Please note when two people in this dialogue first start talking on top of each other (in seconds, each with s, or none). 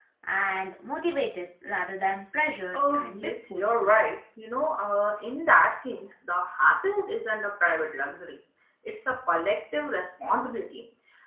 2.7 s